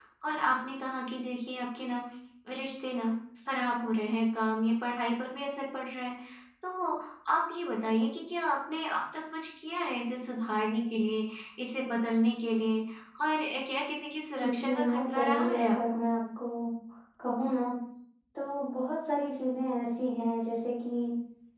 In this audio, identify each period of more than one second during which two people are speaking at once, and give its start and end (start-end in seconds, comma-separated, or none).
14.4-16.0